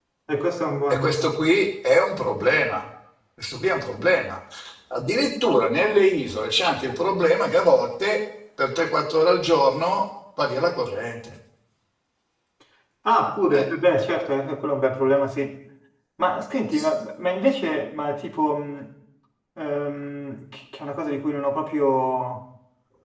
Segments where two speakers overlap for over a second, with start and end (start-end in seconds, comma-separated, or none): none